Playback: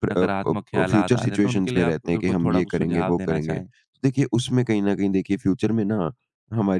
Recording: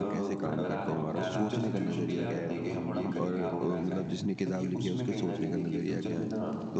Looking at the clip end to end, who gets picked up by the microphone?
both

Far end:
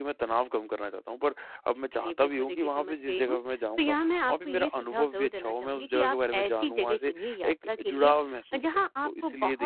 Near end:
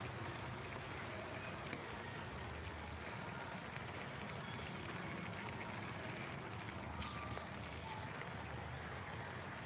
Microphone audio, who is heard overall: neither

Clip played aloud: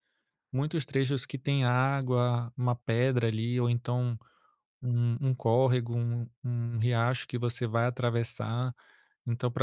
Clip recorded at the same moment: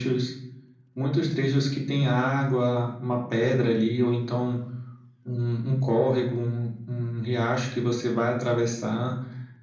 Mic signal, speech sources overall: echo only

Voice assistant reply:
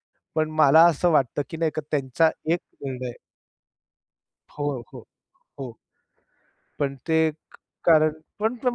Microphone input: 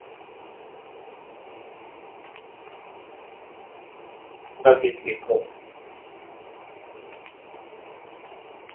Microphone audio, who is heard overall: user only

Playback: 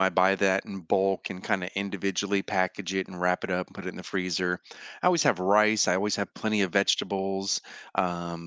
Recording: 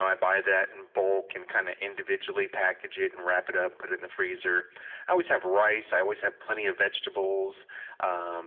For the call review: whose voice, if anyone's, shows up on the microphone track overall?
echo only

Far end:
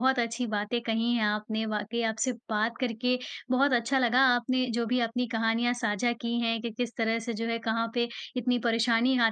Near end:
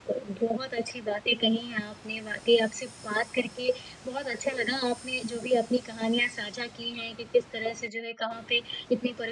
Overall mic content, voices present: echo only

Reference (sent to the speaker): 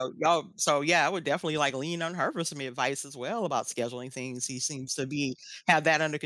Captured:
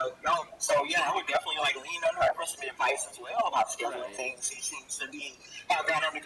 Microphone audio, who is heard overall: both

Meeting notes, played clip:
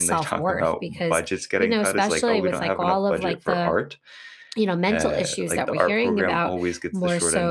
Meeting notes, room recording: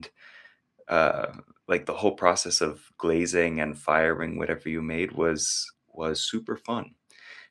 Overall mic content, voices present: user only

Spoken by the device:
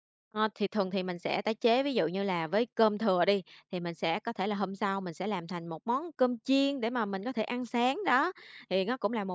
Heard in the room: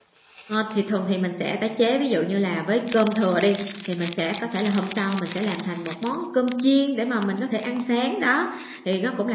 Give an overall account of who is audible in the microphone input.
echo only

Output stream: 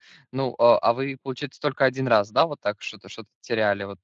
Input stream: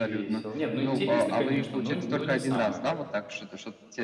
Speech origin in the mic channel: both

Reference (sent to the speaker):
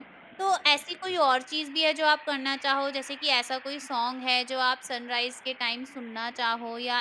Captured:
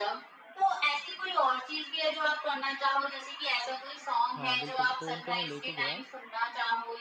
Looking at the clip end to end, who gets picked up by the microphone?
both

